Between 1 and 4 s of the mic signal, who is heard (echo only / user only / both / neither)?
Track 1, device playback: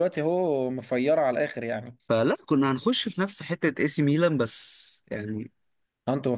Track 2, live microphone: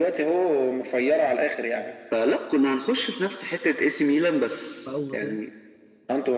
echo only